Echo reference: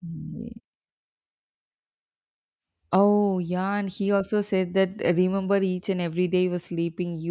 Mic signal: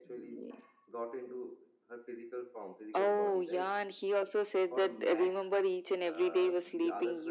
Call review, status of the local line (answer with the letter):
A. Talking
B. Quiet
A